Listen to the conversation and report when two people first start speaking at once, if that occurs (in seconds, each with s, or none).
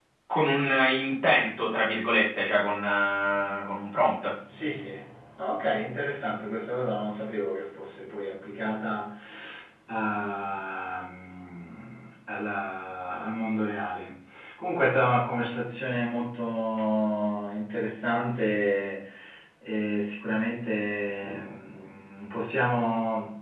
none